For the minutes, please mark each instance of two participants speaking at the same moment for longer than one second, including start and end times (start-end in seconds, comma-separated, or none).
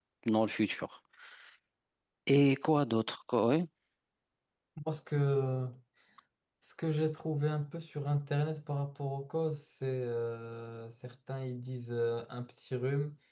none